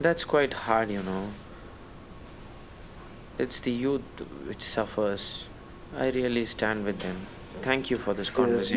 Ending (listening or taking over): taking over